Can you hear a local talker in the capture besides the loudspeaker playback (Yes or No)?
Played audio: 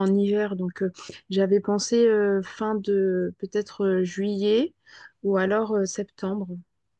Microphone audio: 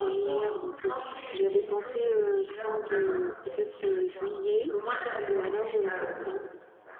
Yes